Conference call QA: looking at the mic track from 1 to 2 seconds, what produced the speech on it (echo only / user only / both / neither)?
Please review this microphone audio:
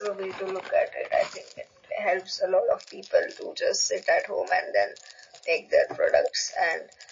echo only